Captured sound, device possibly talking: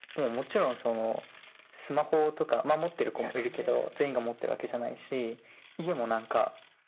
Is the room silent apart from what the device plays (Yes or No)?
No